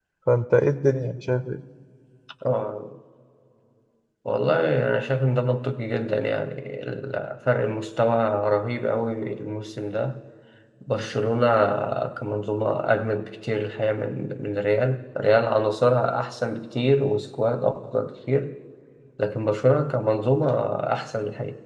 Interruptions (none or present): none